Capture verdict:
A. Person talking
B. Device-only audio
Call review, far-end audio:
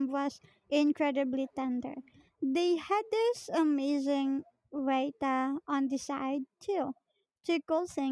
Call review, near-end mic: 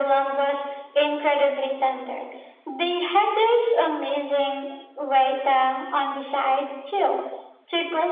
B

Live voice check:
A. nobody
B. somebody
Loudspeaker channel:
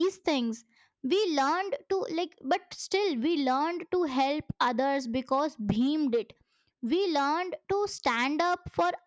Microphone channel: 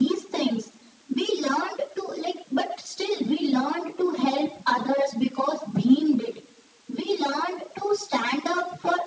A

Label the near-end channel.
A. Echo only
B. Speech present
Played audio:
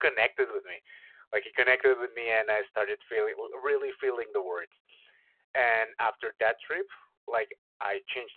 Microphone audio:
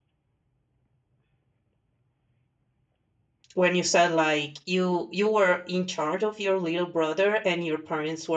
B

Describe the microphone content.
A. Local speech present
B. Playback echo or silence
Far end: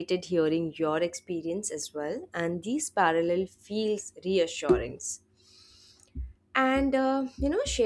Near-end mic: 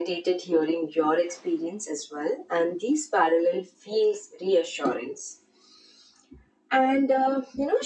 B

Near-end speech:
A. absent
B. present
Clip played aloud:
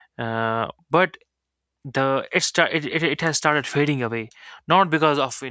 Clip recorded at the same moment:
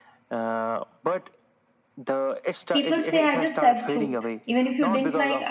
B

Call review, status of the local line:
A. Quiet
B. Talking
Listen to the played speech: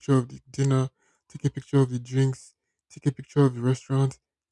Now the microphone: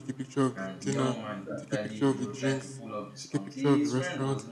B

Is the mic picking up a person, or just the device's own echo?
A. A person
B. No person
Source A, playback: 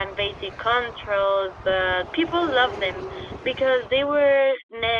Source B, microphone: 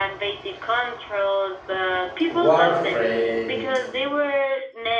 A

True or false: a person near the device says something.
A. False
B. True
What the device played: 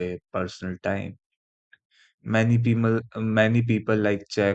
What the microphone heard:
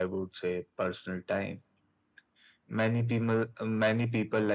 A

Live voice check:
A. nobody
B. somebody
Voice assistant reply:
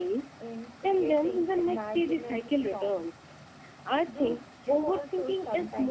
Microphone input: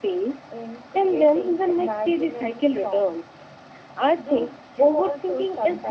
A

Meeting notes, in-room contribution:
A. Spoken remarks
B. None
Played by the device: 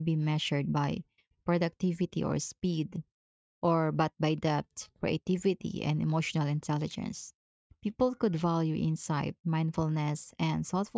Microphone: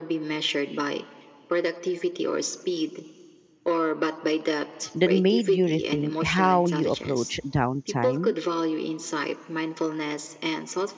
A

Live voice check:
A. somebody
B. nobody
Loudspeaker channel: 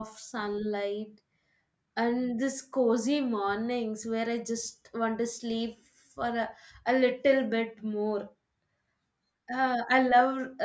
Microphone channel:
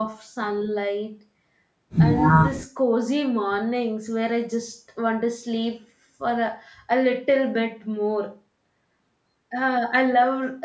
A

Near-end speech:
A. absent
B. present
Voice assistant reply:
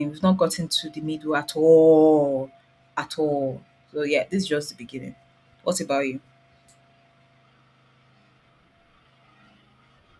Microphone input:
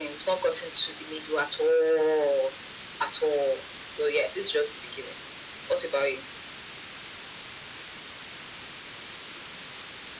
A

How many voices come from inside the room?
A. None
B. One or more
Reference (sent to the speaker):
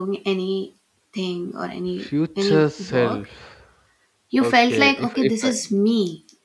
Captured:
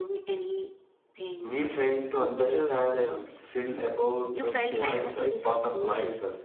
B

